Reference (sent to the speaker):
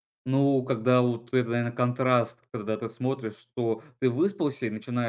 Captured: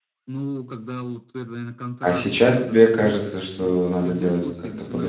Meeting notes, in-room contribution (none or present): present